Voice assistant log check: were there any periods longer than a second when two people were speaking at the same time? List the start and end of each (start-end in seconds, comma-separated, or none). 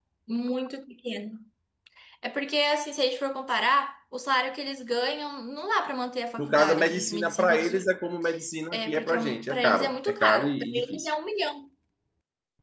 6.4-7.9, 8.7-11.1